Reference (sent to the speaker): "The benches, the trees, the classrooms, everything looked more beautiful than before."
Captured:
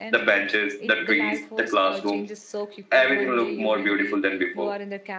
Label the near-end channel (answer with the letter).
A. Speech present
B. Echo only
A